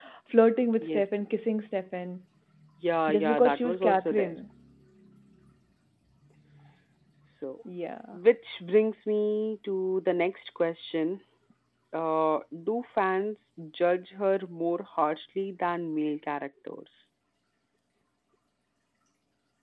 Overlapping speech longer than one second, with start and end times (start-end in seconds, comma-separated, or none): 3.1-4.3